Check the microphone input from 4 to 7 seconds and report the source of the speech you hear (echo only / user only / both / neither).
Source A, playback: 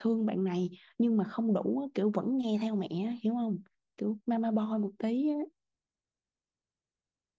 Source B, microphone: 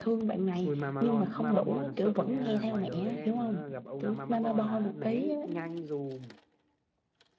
both